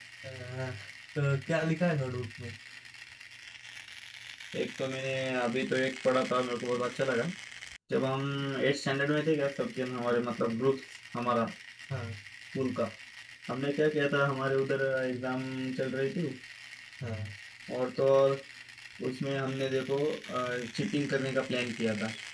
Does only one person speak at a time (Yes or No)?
Yes